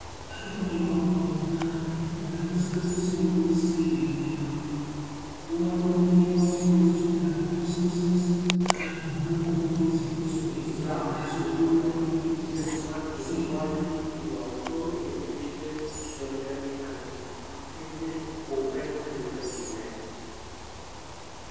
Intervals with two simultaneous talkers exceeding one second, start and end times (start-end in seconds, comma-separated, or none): 10.7-12.0